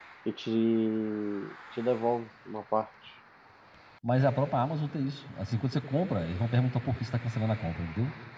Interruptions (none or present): none